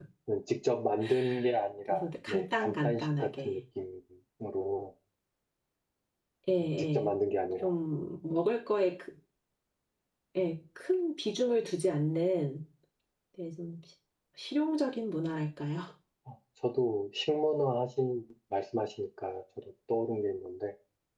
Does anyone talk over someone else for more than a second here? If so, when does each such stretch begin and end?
1.9-3.6

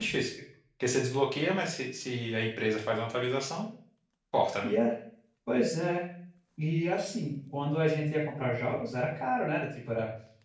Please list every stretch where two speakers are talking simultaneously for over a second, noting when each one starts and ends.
none

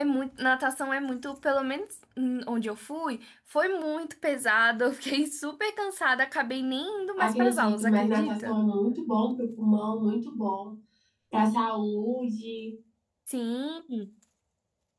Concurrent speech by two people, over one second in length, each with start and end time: 7.2-8.6

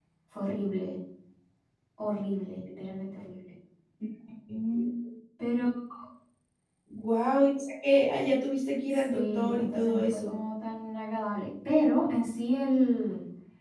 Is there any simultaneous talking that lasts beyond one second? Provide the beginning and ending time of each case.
9.1-10.4

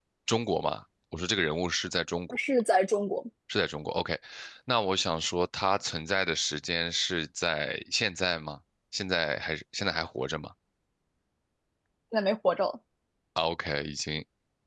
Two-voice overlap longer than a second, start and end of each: none

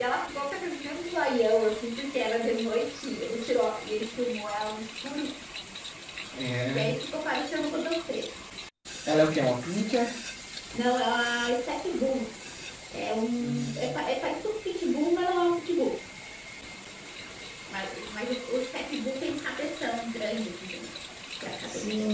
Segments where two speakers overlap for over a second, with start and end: none

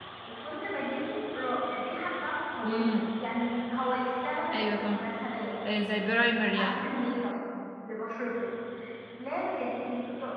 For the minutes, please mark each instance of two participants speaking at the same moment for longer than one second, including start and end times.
none

